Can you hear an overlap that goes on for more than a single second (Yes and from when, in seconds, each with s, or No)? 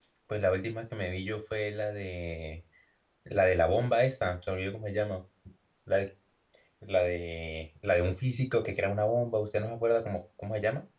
No